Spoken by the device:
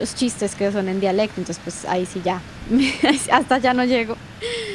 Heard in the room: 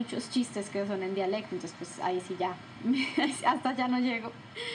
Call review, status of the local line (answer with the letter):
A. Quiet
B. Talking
A